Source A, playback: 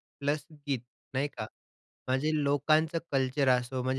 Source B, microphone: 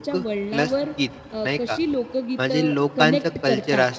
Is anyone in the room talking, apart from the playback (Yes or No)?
Yes